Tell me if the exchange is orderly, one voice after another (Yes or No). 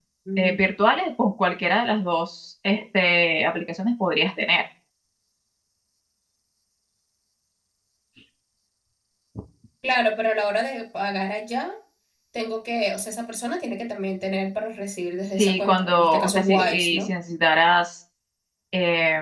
No